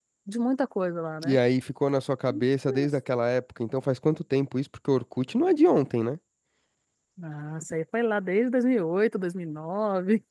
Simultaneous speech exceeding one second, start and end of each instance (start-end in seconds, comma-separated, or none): none